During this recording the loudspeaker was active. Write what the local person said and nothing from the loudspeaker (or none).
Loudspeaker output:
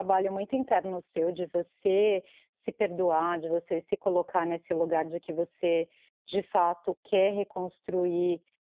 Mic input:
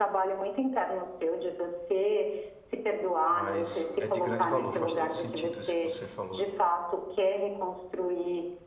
mas é de grande valor, faz todo sentido isso que você falou.